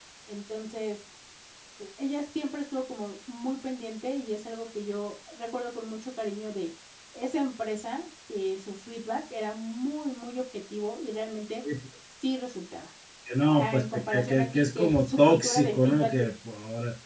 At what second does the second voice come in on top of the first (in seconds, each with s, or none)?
13.5 s